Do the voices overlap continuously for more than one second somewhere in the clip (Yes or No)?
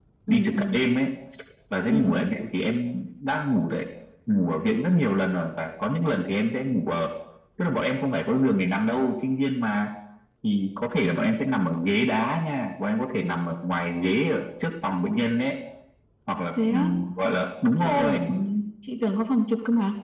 No